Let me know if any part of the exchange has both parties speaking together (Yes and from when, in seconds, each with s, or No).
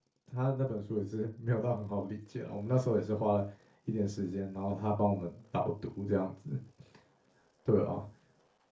No